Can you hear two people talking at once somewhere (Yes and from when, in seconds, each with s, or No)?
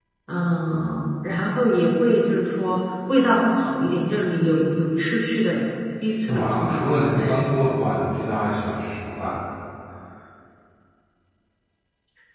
Yes, from 6.3 s